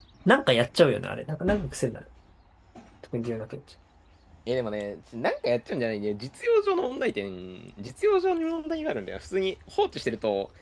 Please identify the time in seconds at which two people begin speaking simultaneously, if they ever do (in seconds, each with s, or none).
none